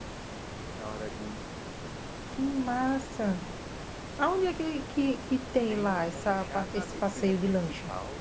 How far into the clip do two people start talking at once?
6 s

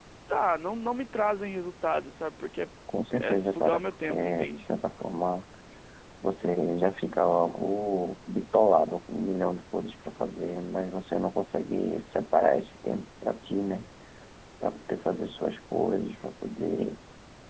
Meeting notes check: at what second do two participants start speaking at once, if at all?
3 s

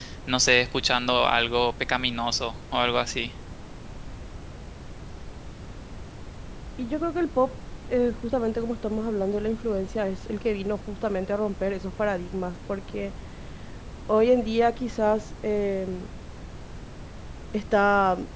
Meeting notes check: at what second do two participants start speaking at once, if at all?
none

